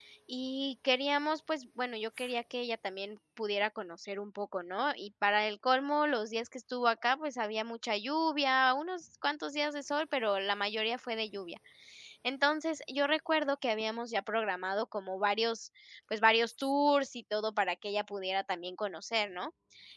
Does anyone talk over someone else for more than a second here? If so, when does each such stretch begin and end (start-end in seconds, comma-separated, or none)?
none